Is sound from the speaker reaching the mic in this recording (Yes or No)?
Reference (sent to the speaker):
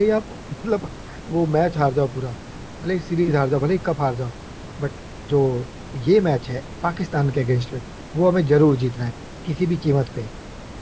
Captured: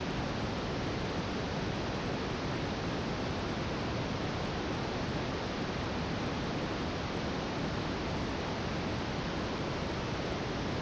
No